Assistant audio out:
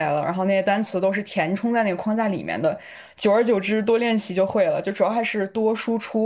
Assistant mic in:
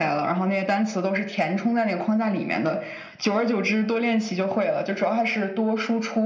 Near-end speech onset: none

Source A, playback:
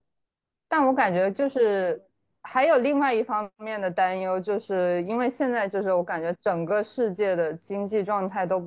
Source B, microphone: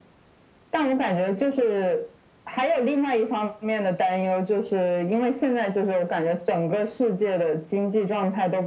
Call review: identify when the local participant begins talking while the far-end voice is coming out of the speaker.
none

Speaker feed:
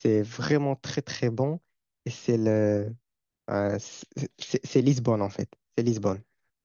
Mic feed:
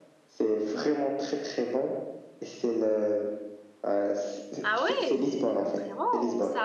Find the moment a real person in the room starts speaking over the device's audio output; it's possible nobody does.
5 s

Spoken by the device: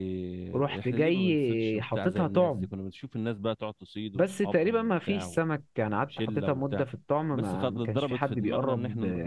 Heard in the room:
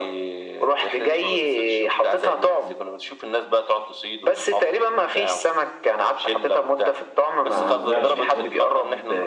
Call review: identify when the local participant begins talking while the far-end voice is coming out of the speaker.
8 s

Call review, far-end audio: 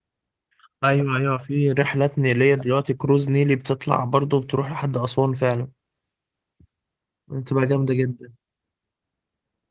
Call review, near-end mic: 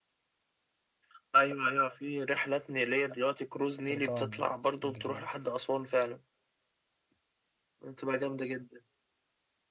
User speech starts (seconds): 4 s

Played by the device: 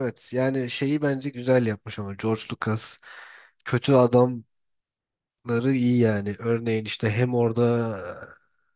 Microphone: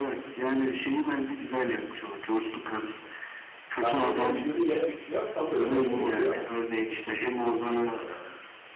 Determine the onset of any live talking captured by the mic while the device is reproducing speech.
4 s

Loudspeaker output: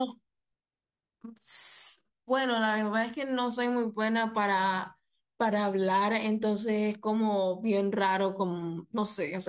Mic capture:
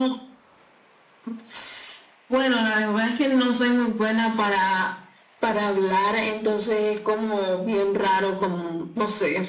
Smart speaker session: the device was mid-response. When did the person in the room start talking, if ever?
none

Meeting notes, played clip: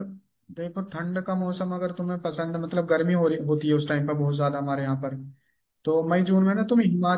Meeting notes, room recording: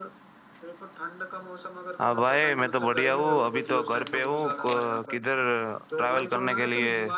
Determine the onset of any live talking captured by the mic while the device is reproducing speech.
2 s

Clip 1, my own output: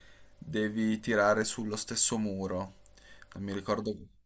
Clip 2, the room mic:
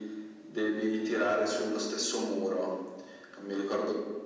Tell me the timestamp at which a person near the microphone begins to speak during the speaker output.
none

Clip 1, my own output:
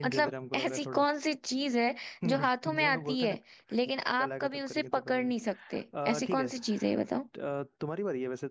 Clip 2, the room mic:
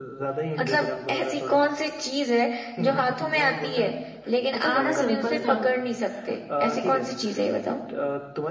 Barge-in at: 5 s

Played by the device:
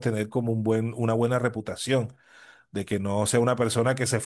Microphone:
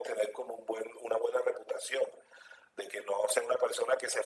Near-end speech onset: none

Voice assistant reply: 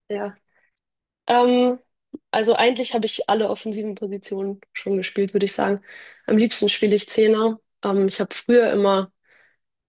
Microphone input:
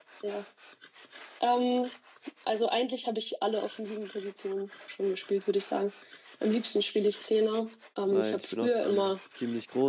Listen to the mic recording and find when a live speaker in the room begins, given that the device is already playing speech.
8 s

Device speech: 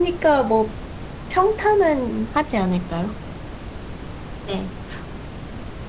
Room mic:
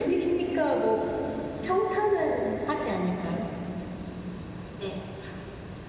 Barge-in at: none

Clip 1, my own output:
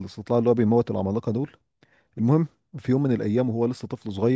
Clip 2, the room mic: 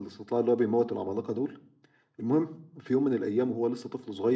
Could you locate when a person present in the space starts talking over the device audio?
none

